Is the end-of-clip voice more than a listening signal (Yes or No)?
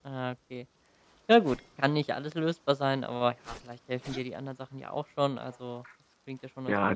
Yes